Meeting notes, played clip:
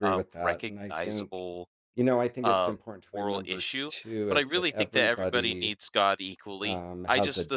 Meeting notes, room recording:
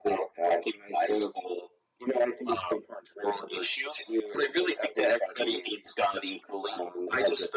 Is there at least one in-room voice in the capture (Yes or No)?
No